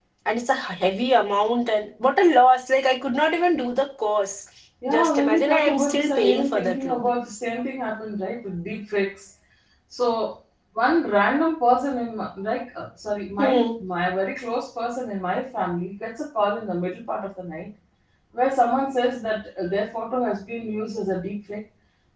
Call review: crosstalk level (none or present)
present